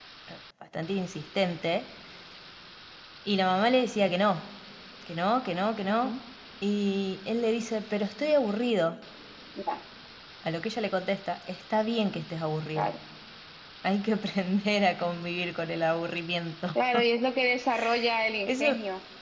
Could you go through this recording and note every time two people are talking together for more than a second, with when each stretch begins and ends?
none

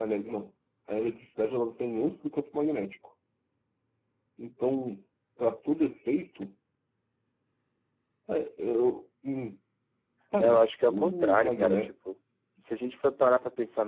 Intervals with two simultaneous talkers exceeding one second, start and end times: 10.4-11.9

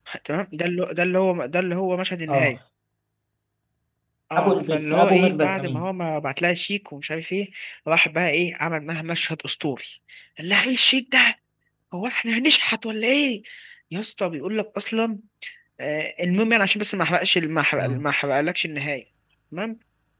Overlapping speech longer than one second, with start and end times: 4.4-5.9

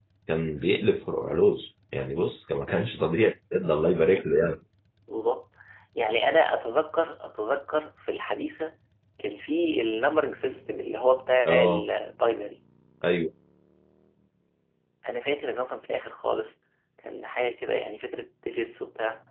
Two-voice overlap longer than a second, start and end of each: none

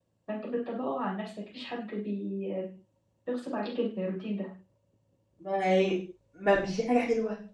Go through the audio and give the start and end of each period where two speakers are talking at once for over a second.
none

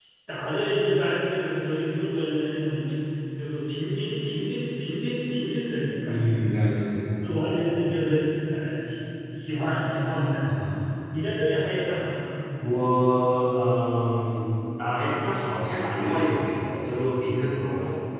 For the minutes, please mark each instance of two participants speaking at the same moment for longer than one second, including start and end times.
none

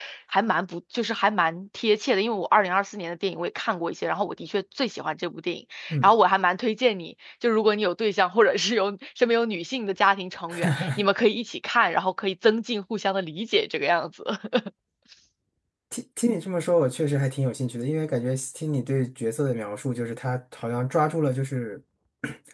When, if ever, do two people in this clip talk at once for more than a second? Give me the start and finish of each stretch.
none

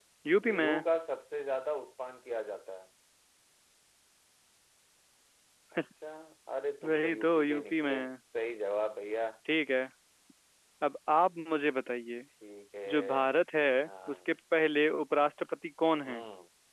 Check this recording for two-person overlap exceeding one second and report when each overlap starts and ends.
6.8-8.2

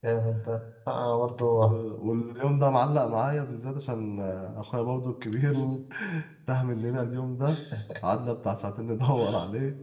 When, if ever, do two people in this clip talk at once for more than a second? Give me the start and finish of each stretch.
none

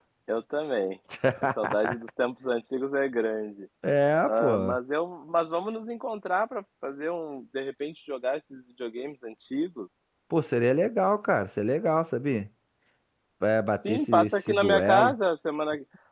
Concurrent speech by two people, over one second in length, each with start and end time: 13.9-15.1

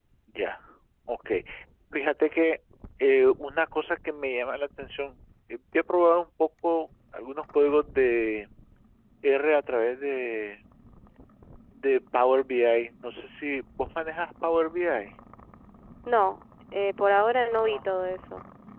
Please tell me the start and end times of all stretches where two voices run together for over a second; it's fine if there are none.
none

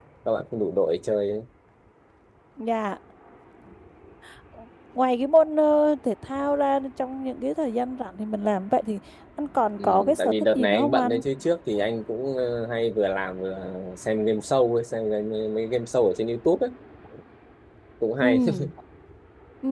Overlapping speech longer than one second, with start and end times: 9.8-11.2

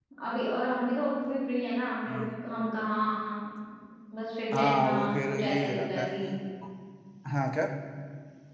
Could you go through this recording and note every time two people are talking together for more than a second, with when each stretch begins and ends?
4.5-6.1

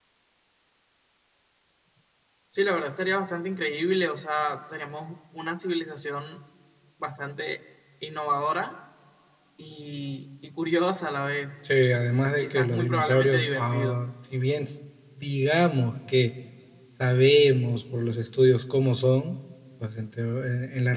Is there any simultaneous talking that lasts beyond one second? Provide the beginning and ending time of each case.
12.4-14.0

